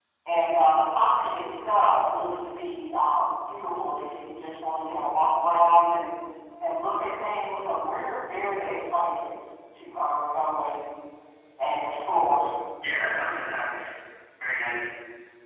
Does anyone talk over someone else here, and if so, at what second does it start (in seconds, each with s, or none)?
none